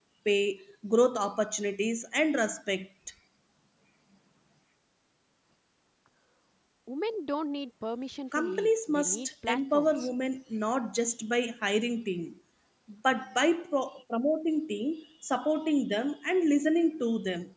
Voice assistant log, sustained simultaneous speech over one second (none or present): present